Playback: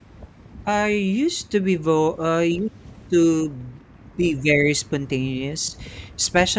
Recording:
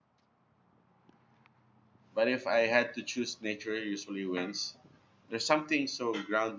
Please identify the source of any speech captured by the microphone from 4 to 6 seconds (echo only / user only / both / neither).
user only